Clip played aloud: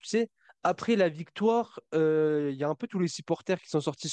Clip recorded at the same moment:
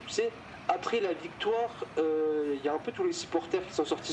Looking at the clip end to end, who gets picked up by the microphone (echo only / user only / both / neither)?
echo only